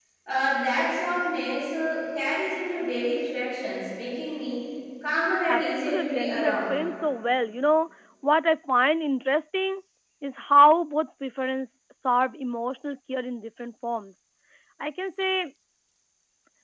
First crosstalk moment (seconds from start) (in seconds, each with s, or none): 5.5 s